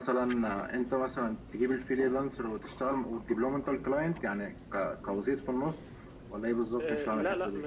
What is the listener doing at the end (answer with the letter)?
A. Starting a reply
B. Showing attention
A